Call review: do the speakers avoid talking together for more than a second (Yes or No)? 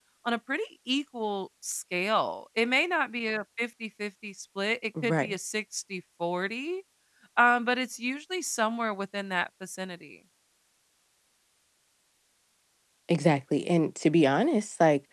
Yes